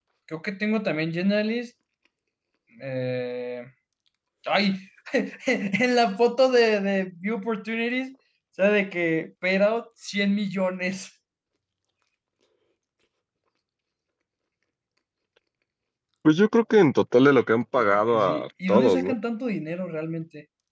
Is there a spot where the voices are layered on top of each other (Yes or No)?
Yes